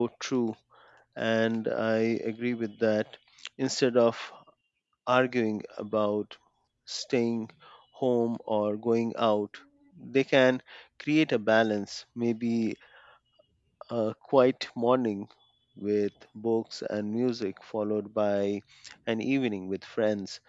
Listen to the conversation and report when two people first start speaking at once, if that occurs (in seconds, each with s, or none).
none